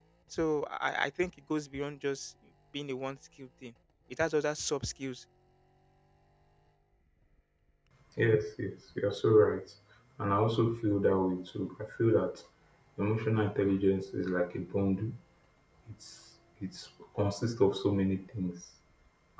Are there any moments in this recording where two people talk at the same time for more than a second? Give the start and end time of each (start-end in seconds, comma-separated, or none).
none